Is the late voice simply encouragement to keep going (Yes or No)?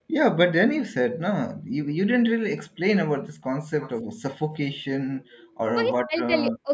No